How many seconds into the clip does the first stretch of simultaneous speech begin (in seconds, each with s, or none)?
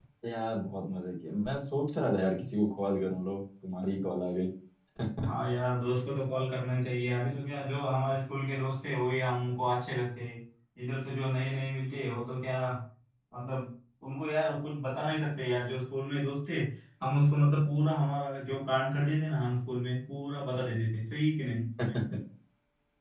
none